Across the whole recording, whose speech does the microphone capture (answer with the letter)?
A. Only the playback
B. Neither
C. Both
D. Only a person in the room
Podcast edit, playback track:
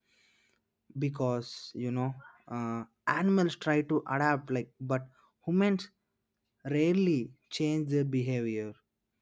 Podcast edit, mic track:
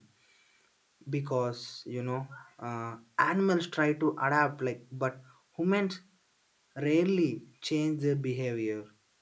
A